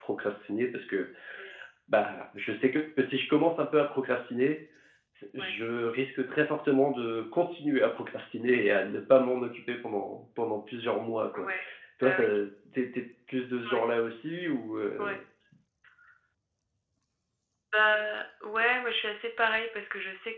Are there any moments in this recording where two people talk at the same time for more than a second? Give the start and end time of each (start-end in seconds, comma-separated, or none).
none